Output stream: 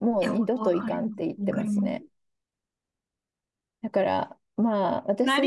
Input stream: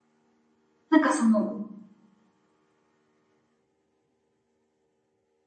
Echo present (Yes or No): No